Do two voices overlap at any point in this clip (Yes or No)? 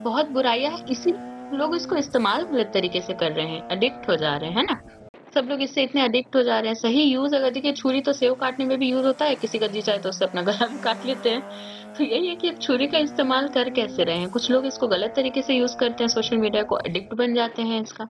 No